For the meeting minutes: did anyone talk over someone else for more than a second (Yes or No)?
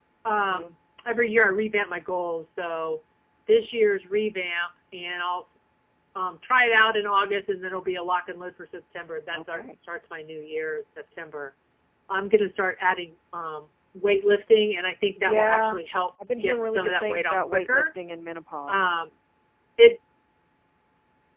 Yes